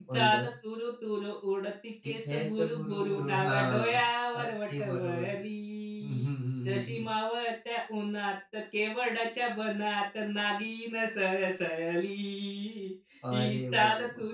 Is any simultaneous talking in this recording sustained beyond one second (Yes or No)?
Yes